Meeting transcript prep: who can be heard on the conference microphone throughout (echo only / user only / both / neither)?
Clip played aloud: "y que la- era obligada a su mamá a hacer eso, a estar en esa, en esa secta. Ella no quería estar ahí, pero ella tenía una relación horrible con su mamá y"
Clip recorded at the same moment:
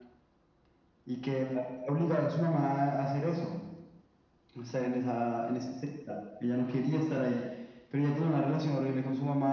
echo only